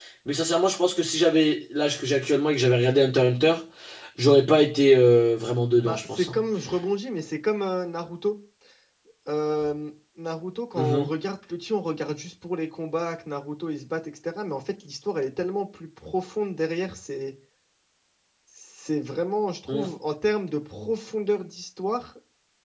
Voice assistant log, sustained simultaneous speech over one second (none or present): none